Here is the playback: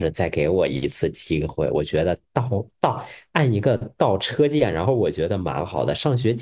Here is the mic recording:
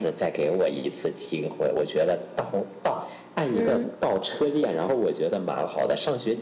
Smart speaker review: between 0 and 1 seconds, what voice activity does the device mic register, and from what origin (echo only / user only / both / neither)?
echo only